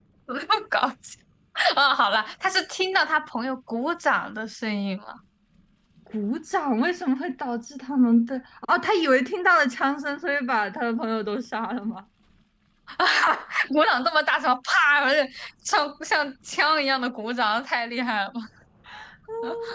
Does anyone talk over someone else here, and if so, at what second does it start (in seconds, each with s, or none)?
none